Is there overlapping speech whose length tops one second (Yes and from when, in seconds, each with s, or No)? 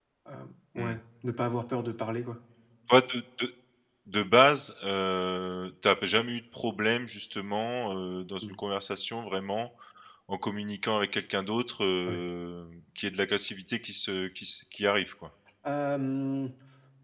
No